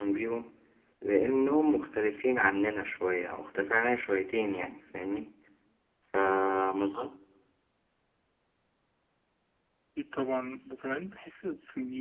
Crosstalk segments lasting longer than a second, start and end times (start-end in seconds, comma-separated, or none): none